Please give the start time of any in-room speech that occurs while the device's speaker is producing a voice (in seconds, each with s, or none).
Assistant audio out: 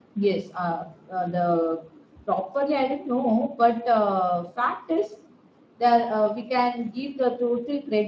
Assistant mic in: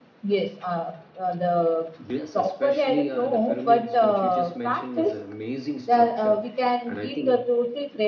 2.0 s